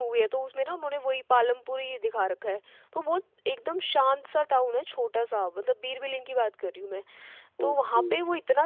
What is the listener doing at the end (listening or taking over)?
listening